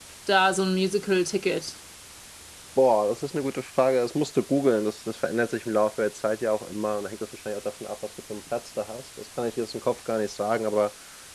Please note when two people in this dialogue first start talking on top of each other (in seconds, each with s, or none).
none